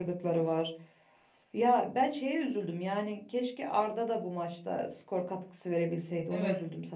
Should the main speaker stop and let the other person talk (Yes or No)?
Yes